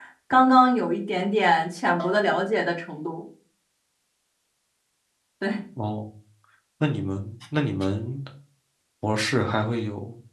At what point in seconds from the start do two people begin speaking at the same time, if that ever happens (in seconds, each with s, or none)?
none